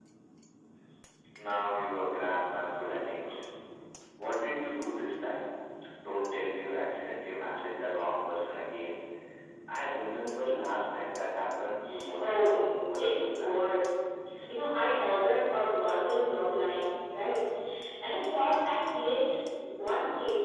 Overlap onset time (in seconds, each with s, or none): 12.2 s